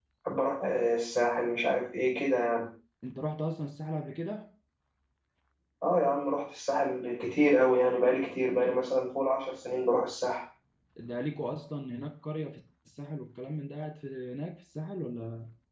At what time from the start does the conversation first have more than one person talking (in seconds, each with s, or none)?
none